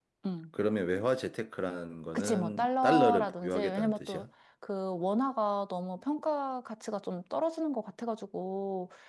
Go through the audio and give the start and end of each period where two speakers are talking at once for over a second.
2.1-4.2

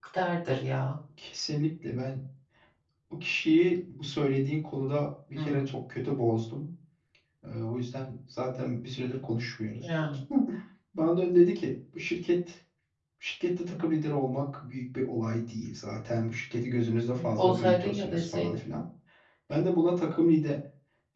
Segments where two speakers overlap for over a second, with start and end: 17.1-18.6

